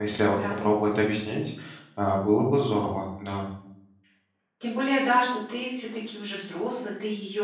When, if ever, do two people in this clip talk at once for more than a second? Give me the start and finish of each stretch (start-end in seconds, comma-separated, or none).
none